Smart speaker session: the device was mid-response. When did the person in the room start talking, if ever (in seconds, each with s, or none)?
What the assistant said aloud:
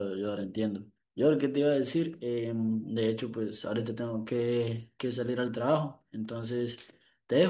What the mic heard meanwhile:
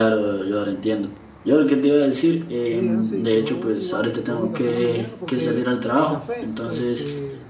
2.7 s